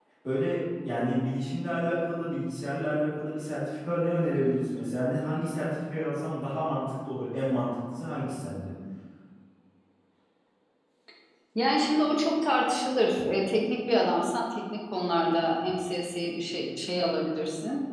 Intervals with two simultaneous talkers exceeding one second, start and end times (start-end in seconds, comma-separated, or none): none